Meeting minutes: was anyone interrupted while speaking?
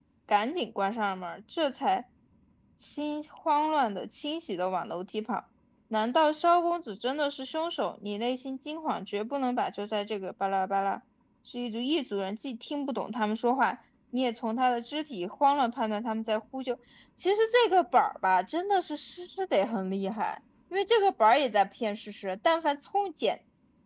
No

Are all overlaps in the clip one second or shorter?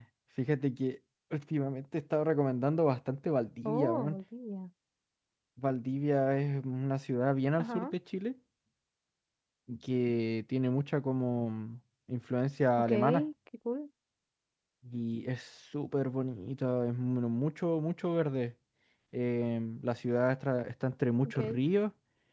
Yes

